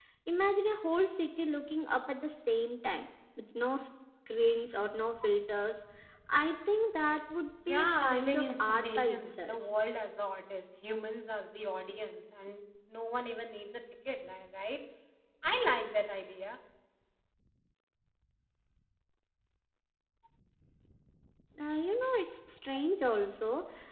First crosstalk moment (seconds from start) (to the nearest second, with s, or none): 8 s